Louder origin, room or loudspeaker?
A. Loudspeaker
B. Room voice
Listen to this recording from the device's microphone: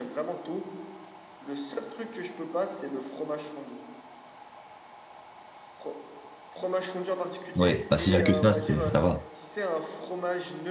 B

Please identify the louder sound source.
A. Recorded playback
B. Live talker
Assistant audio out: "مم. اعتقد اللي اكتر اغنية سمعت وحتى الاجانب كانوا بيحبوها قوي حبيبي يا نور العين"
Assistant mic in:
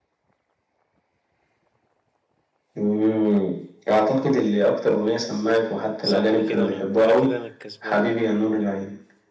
A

